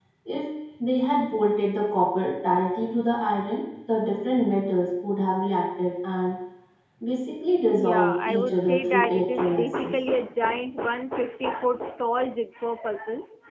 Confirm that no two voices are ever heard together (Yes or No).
No